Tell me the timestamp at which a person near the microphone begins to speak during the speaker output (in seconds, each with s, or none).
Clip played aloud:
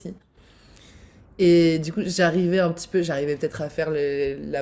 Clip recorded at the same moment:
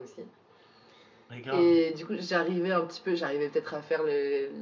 1.3 s